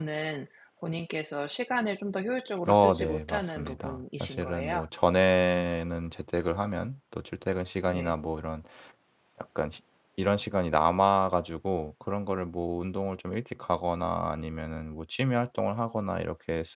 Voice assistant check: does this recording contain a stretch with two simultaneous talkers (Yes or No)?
Yes